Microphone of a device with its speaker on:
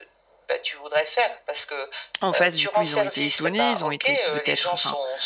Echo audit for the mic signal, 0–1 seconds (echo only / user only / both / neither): echo only